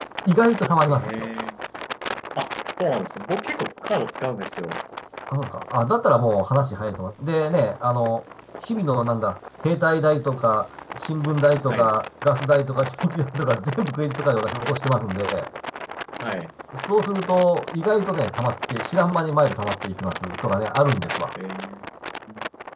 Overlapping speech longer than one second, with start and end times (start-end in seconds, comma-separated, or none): none